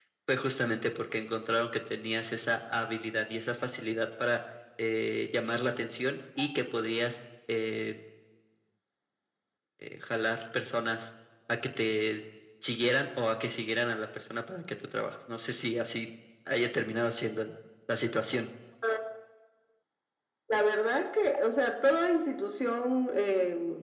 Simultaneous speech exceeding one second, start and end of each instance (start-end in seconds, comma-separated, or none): none